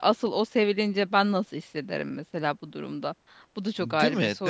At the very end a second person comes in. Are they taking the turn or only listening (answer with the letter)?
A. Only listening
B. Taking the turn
B